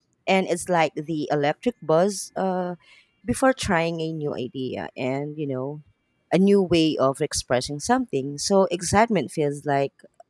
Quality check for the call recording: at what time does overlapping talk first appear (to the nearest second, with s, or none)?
none